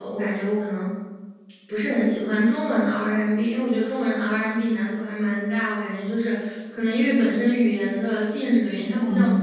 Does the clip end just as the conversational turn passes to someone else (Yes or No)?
Yes